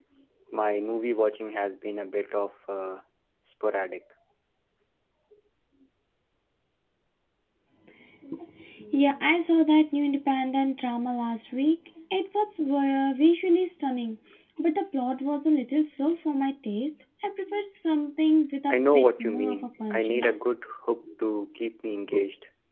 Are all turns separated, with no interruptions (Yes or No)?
No